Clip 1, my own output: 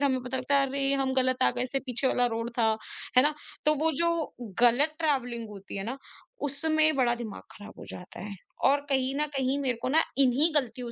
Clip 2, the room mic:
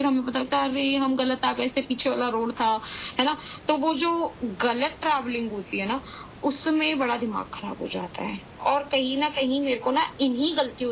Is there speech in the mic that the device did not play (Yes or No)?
No